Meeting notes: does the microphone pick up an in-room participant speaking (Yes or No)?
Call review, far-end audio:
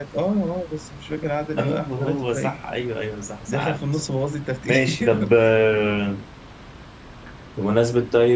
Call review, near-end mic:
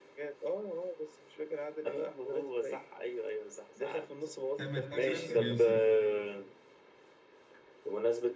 Yes